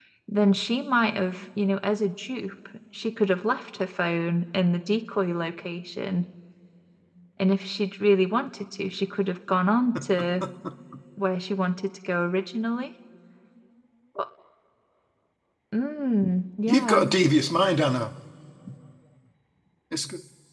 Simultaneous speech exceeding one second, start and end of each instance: none

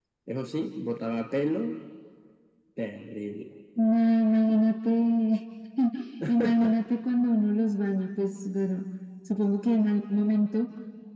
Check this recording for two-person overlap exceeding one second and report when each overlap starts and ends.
none

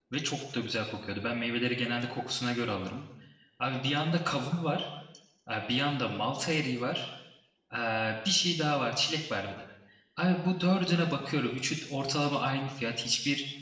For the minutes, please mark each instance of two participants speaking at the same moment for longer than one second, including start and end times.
none

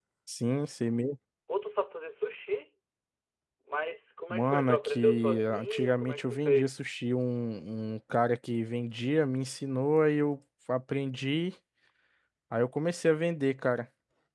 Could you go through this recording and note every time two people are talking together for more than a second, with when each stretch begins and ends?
4.3-6.7

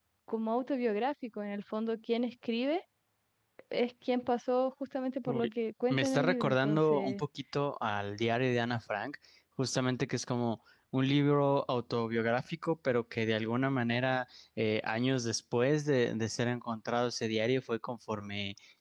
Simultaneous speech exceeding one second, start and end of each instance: 5.9-7.2

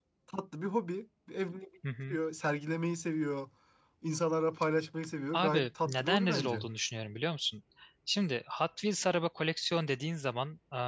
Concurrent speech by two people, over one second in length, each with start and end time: 5.3-6.6

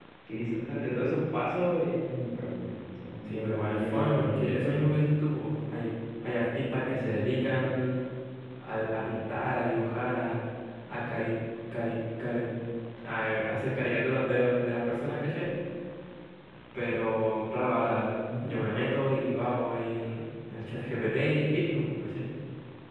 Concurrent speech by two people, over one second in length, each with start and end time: 3.2-4.7

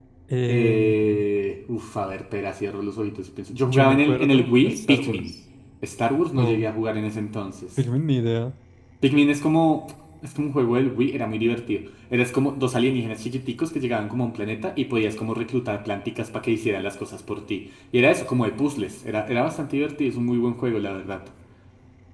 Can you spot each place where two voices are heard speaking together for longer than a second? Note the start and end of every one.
3.7-5.3

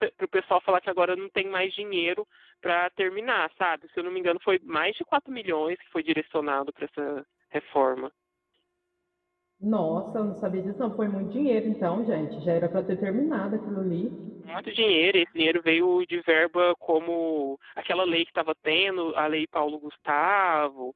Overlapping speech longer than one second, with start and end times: none

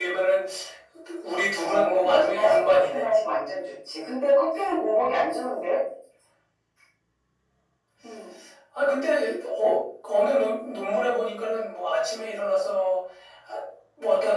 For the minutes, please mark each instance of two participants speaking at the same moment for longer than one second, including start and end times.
1.6-3.1

